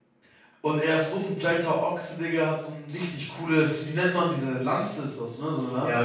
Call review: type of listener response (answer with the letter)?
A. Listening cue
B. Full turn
B